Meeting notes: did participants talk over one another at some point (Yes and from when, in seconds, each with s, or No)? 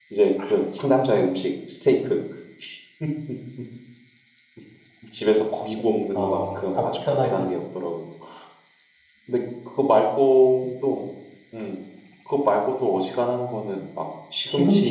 Yes, from 6.2 s